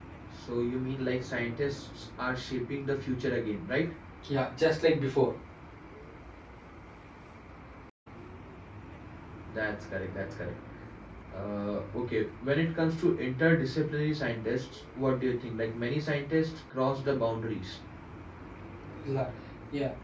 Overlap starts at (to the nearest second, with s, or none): none